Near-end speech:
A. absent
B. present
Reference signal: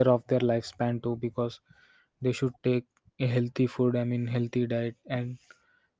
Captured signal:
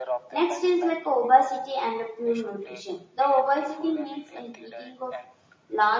B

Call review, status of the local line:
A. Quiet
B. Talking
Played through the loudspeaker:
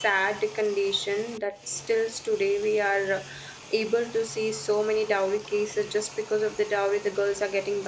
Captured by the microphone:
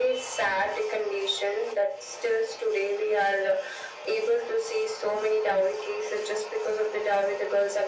A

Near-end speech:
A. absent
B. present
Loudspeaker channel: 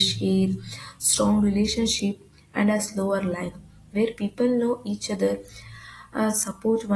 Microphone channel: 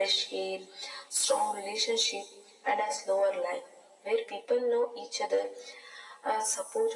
A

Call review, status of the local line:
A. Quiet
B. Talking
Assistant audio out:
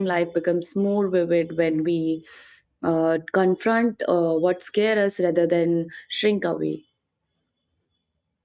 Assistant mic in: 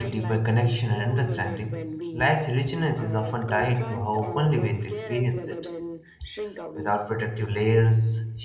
B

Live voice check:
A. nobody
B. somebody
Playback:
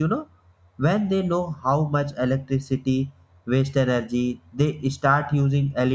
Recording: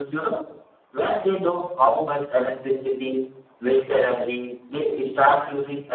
A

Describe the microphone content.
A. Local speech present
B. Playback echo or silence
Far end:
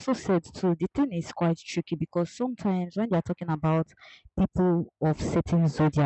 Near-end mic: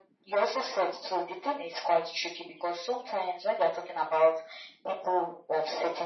B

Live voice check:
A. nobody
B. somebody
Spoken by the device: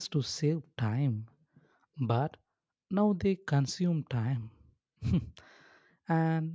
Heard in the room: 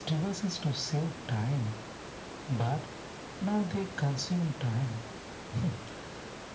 A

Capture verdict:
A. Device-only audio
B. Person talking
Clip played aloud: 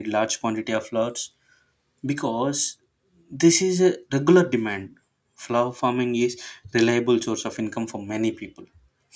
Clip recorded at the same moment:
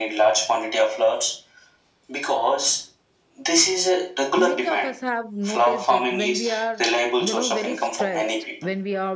B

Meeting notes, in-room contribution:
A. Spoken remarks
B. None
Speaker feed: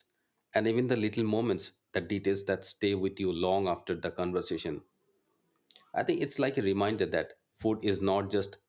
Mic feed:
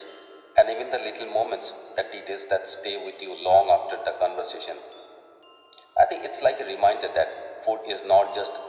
B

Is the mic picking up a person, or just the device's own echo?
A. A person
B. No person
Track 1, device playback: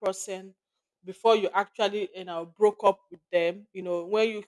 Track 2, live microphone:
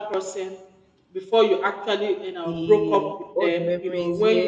A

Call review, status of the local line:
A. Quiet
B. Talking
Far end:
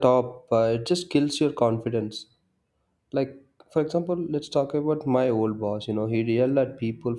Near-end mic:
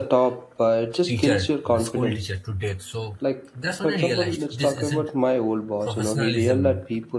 B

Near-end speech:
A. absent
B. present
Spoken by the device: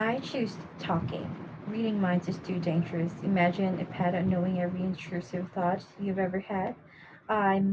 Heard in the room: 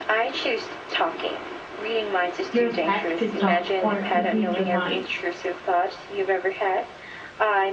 B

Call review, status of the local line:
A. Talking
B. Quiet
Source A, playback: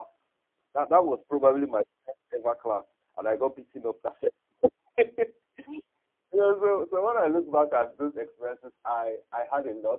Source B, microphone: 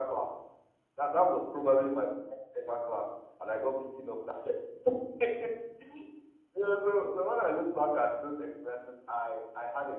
B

